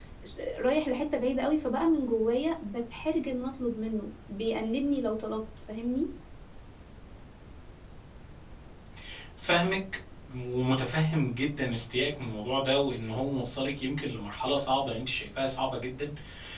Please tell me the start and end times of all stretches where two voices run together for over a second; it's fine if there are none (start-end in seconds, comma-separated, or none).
none